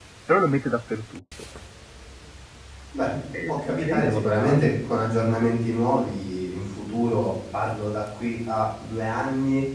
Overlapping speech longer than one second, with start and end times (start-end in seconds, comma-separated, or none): 3.5-4.7